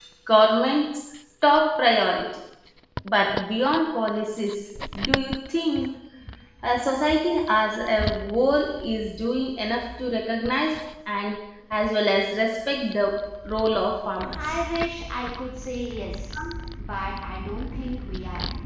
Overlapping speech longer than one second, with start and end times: none

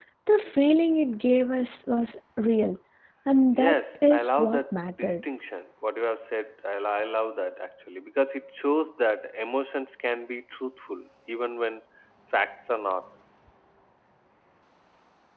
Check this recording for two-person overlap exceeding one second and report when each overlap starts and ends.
3.5-5.1

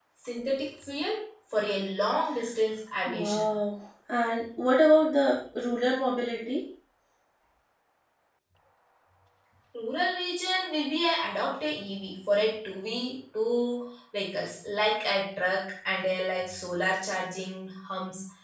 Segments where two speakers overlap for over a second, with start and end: none

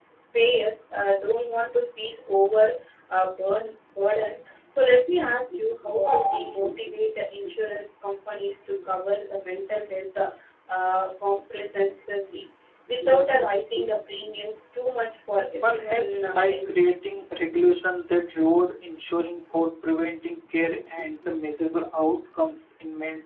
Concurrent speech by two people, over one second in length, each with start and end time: 15.6-16.9

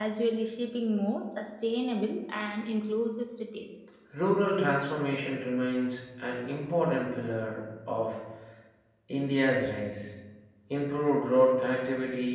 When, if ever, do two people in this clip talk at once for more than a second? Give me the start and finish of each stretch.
none

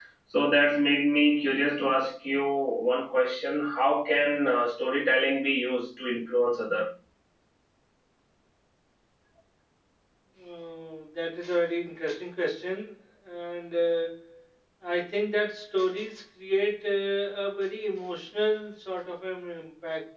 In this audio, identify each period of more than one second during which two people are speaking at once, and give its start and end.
none

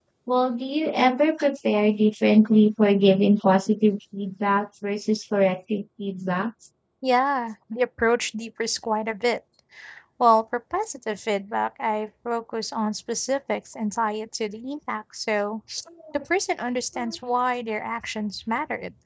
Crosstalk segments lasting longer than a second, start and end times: none

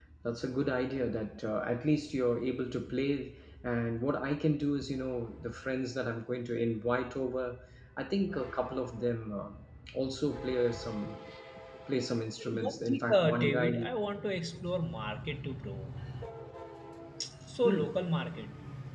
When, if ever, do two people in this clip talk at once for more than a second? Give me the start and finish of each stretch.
12.5-13.7

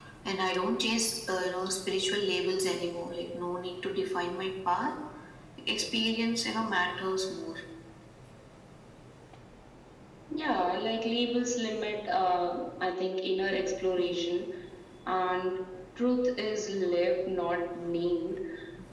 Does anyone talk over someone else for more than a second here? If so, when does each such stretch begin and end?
none

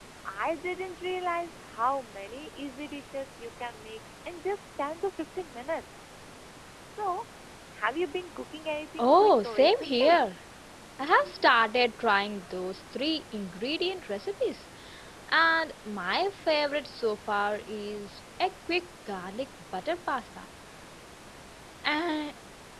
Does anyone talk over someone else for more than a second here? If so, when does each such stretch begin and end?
9.0-10.2

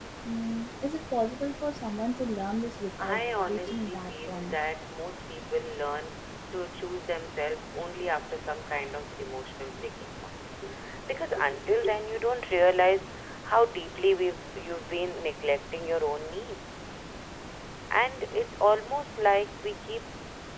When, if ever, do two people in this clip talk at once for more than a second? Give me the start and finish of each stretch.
3.0-4.6

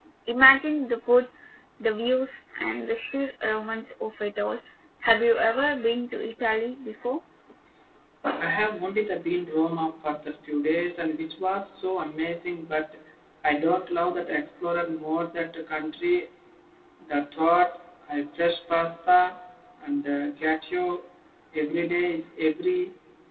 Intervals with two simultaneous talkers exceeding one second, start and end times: none

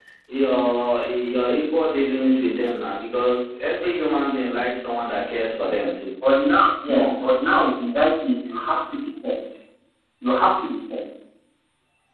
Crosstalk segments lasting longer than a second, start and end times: none

